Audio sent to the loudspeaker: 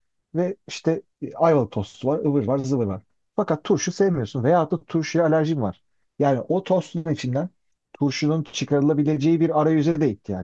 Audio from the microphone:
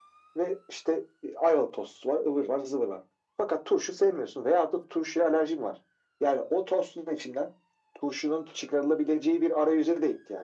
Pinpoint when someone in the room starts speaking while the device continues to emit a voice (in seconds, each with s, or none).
none